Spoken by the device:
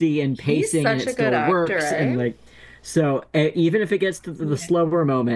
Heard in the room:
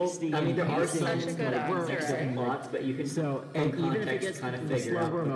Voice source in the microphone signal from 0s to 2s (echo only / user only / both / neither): both